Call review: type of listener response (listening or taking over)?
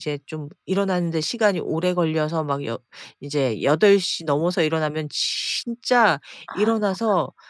listening